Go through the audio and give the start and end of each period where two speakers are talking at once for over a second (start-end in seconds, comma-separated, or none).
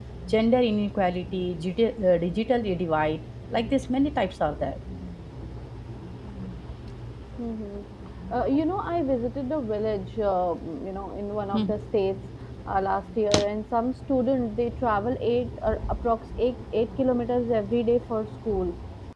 none